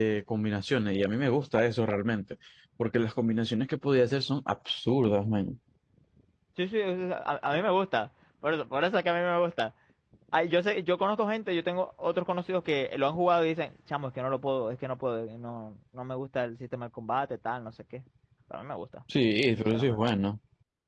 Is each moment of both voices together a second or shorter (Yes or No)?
Yes